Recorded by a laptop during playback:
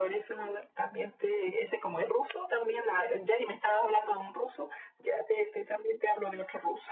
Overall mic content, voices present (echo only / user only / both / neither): echo only